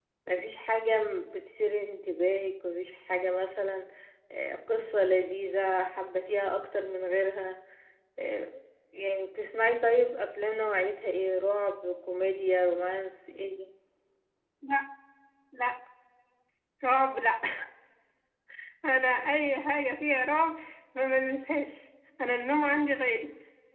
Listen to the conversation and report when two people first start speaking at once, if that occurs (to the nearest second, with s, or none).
none